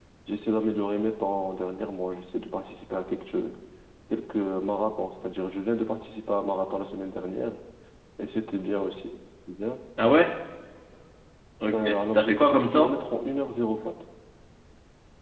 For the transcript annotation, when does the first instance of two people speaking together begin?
11.7 s

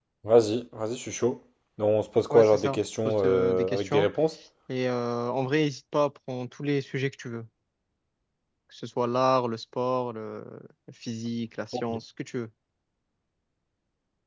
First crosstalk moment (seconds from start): 2.3 s

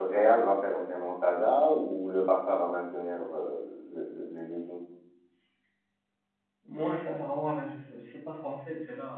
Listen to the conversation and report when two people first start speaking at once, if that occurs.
none

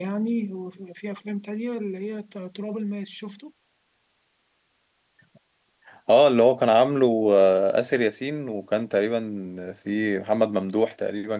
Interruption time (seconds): none

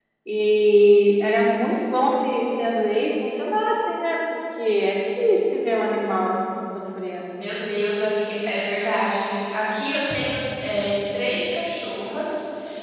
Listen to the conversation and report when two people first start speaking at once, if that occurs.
none

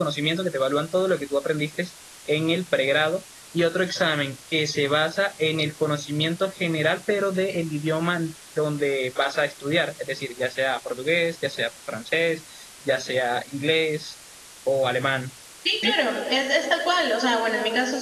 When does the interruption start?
none

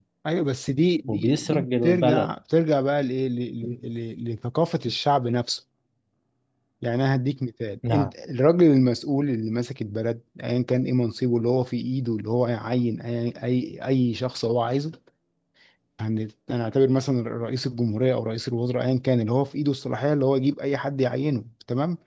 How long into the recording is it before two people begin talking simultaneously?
1.1 s

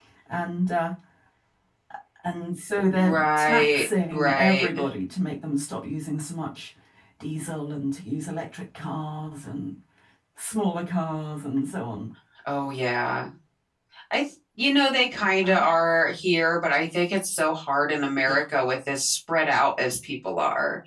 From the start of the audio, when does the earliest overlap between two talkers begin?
3.0 s

